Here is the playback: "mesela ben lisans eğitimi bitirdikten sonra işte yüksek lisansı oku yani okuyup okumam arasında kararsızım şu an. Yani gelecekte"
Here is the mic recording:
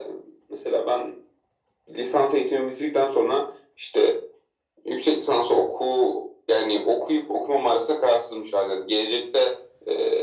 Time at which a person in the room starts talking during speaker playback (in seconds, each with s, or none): none